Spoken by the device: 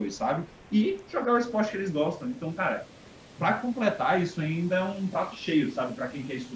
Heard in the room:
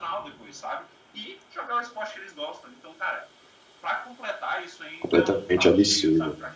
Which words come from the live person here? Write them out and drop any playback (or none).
completamente absurdo.